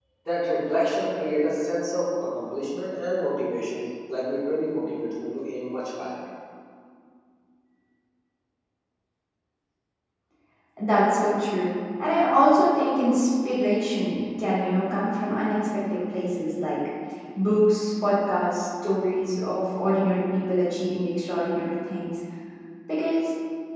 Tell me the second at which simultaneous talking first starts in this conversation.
none

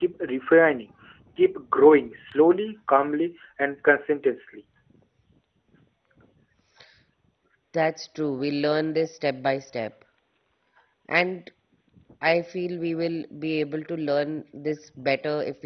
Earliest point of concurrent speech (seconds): none

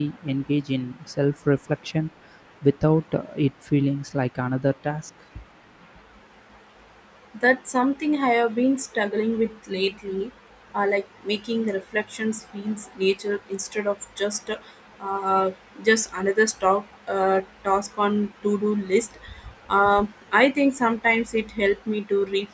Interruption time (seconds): none

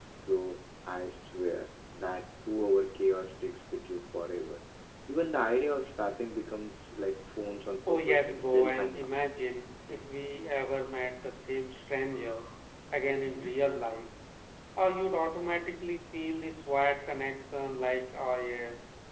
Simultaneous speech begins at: 7.9 s

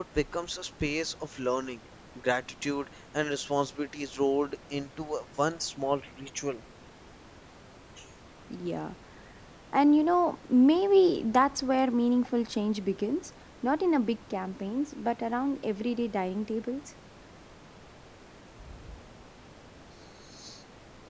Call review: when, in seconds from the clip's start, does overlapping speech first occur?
none

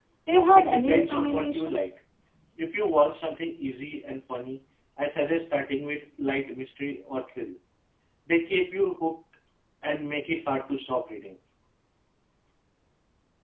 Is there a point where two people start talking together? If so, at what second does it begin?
0.5 s

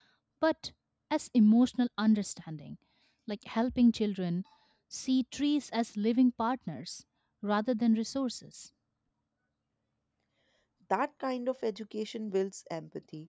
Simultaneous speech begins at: none

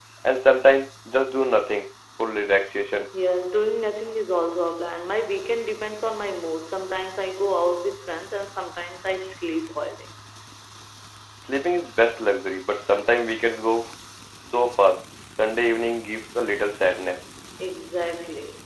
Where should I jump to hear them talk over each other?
none

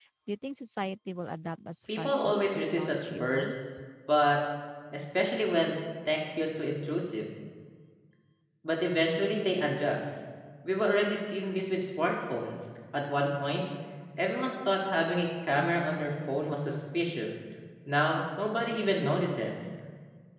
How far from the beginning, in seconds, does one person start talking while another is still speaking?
1.9 s

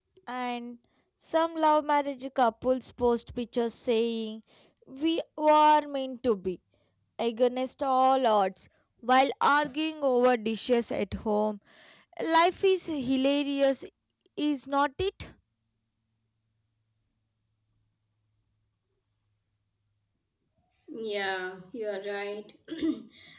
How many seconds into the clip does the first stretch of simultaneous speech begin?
none

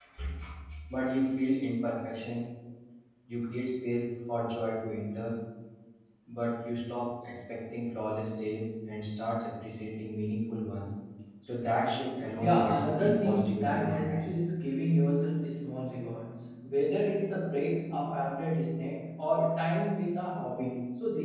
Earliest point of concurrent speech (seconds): 12.4 s

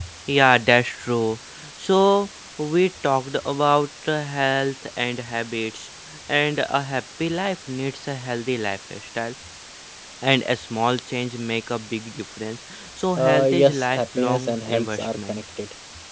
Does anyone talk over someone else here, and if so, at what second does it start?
13.2 s

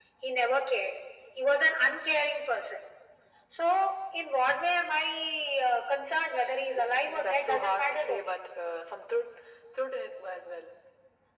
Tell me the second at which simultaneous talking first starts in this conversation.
6.7 s

